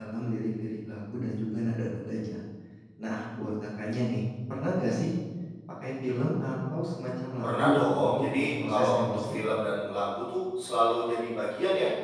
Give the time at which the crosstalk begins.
7.4 s

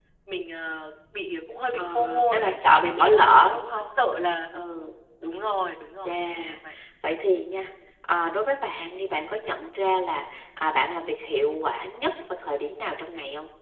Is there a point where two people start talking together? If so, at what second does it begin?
1.7 s

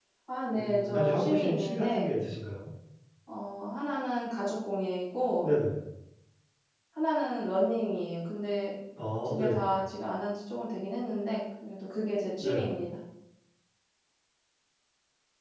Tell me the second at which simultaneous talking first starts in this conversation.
0.5 s

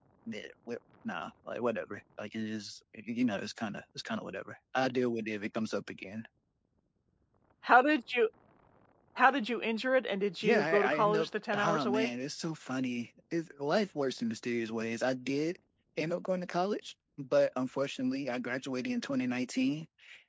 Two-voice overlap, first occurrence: 10.4 s

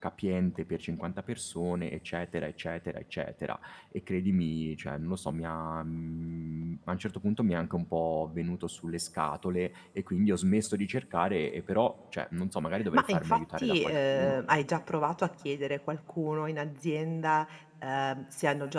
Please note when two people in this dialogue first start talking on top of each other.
12.9 s

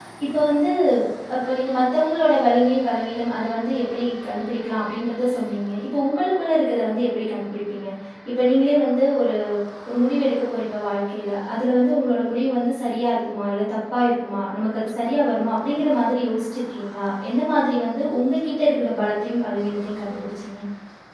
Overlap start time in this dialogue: none

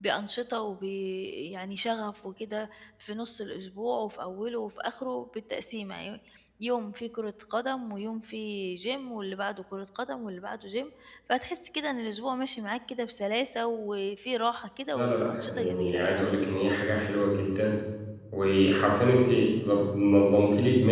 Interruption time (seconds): 14.9 s

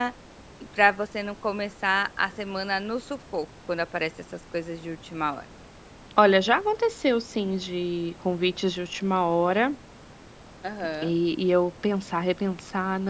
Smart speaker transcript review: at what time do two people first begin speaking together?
none

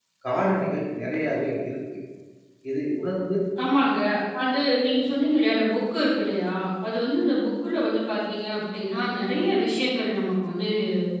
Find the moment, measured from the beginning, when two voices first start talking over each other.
none

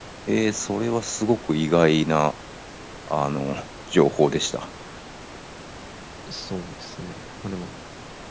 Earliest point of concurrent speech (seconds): none

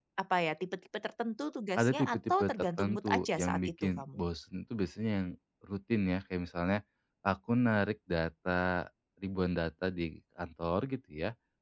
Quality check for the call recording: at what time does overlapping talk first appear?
1.8 s

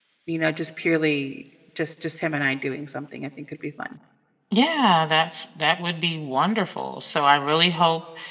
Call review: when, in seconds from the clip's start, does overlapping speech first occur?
none

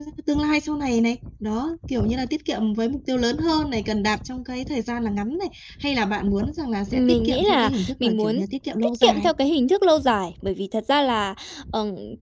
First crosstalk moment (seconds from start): 6.9 s

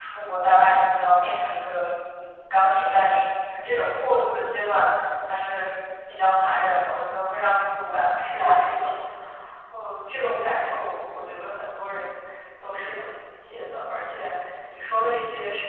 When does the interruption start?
7.6 s

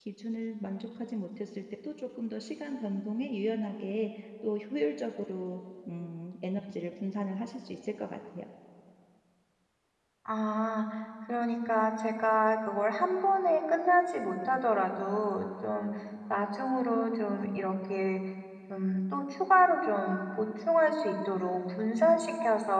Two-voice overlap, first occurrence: none

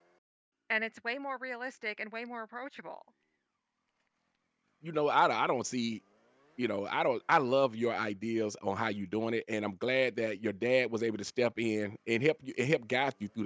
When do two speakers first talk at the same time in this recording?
none

